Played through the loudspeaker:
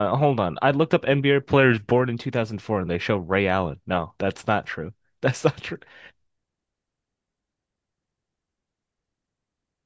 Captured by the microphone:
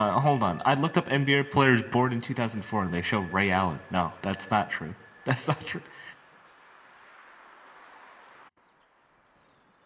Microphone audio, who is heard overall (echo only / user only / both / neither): echo only